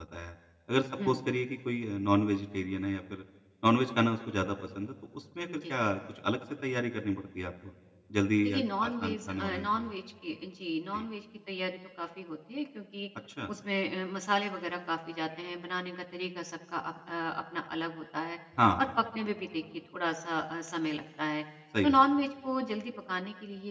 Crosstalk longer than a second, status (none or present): present